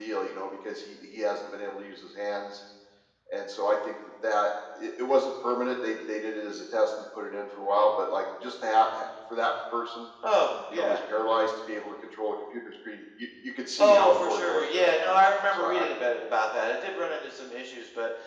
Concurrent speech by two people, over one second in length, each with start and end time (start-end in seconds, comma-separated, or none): 13.8-15.9